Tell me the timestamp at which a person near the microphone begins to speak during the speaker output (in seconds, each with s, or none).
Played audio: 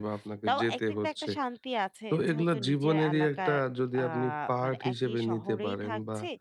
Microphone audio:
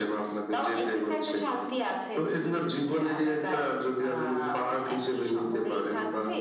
none